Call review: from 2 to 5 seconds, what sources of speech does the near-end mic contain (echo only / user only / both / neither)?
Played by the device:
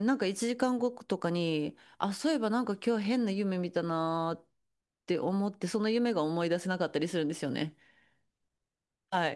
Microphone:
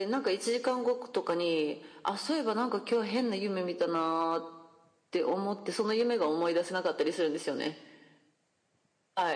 echo only